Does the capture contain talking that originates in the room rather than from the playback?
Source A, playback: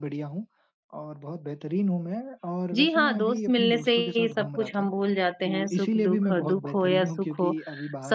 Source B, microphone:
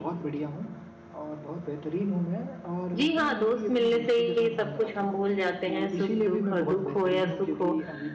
No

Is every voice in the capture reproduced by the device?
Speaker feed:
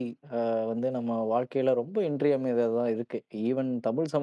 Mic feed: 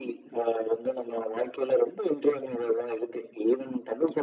Yes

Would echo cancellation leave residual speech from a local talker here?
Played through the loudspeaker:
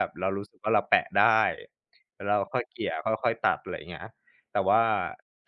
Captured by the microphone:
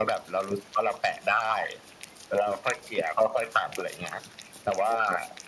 No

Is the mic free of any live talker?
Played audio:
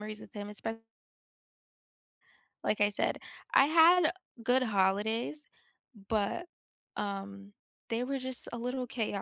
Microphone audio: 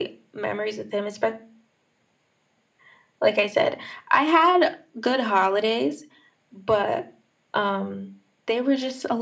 Yes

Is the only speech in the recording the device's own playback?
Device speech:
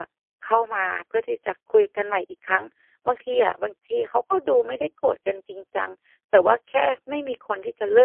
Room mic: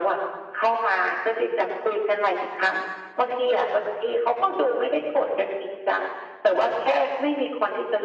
Yes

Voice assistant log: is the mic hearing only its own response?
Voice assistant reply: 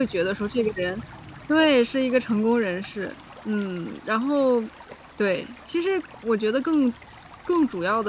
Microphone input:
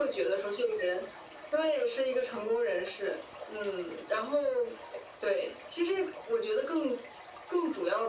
Yes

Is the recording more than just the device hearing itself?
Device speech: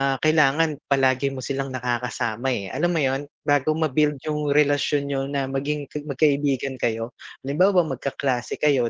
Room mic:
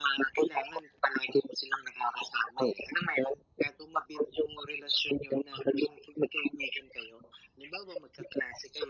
No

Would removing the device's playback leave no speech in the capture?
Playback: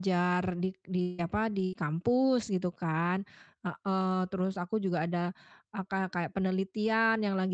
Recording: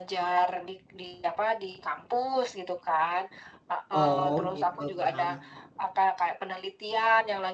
No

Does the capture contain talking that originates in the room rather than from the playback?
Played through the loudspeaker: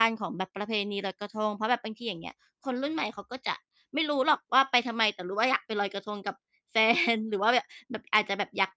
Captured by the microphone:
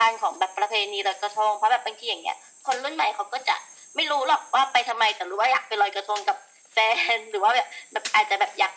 No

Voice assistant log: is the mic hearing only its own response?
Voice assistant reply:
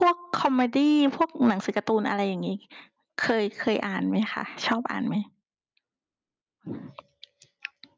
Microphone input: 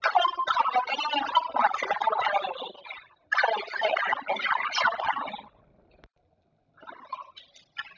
Yes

